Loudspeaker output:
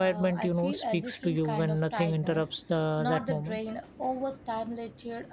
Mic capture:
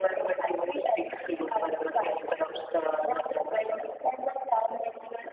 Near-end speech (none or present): none